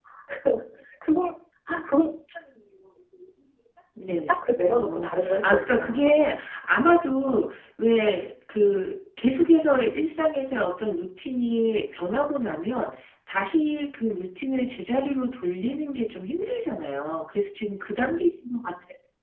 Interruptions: present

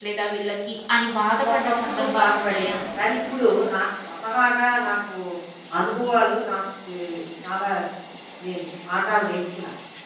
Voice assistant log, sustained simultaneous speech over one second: present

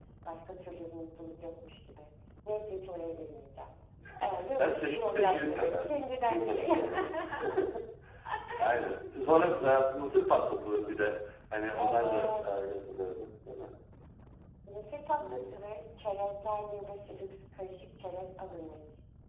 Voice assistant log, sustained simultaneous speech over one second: present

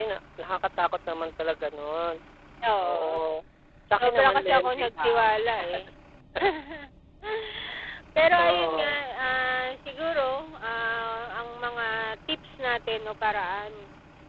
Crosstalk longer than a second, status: present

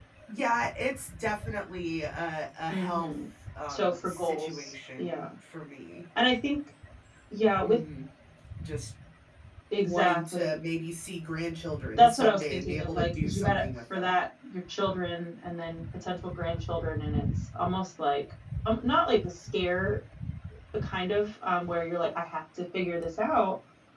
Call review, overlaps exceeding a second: present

